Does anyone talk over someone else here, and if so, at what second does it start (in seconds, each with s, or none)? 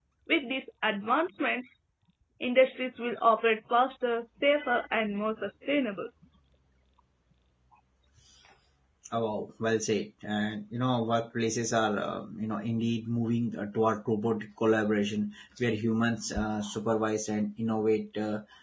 none